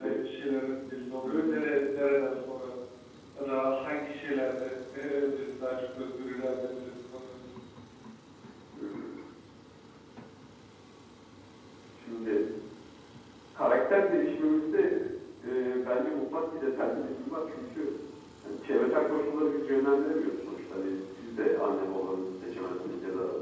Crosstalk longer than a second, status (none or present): none